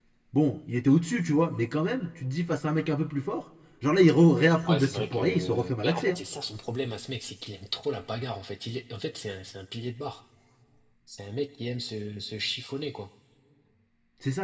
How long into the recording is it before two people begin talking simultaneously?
4.7 s

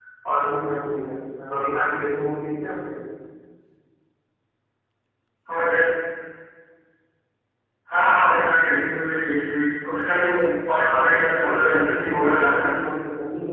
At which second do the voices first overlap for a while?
10.9 s

